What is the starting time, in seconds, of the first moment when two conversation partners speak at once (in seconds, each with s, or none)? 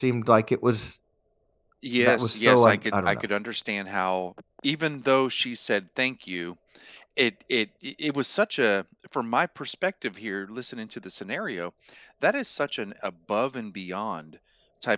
2.0 s